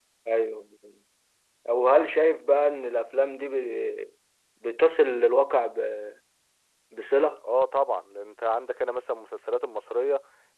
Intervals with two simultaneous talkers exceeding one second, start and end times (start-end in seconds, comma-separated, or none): none